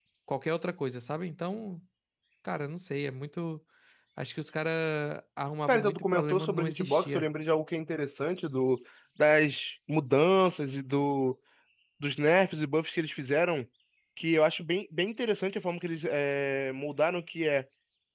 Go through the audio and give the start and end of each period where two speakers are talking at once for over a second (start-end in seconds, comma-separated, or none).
5.7-7.2